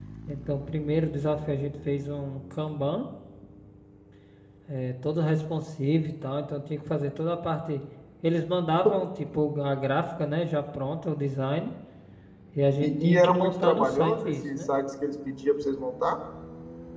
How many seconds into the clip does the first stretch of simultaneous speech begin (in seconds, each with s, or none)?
12.8 s